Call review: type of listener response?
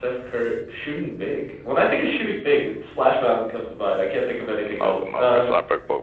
taking over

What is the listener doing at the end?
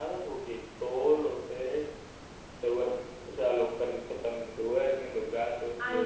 taking over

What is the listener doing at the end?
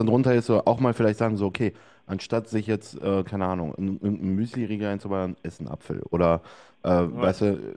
listening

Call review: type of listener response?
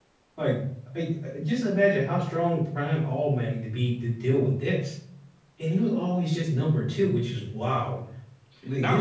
taking over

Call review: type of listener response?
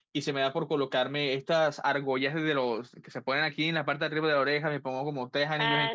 listening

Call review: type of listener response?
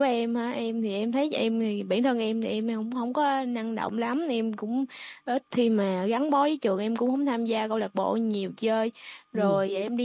listening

